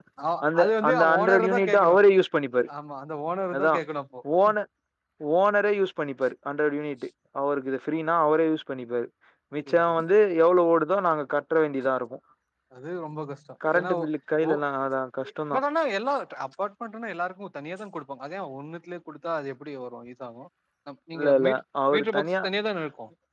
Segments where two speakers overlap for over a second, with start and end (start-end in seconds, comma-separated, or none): 0.5-1.9